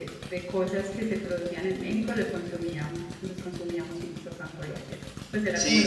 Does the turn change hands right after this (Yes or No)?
Yes